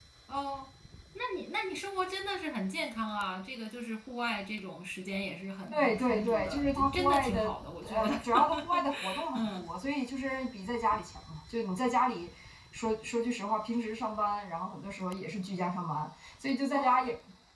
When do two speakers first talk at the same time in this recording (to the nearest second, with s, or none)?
6 s